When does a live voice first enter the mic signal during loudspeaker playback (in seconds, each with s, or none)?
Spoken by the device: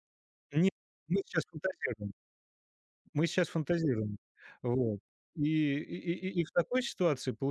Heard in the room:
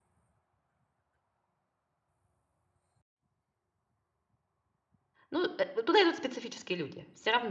5.3 s